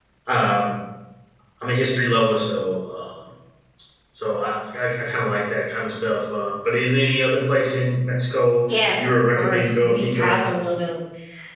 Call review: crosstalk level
present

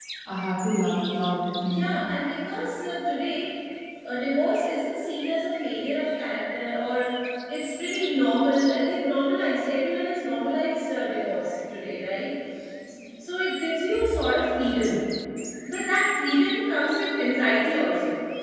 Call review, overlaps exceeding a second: none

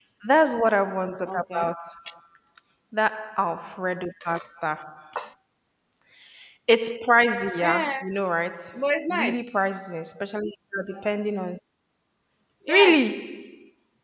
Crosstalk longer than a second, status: none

